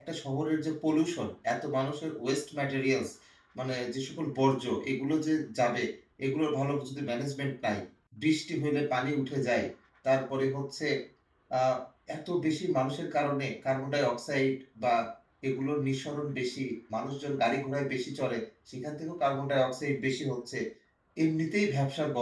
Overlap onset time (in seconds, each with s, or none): none